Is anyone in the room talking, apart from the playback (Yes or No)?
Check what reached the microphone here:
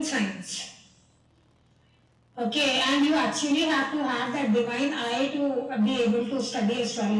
No